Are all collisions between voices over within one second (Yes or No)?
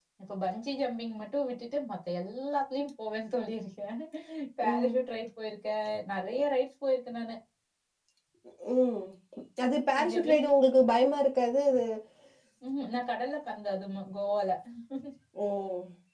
Yes